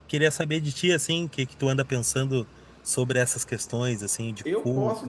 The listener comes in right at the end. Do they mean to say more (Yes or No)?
Yes